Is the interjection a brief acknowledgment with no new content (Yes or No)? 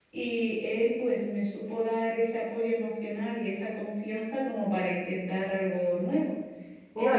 No